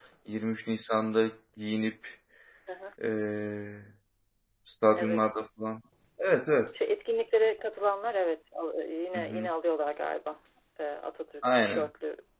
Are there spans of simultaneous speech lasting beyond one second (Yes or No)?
No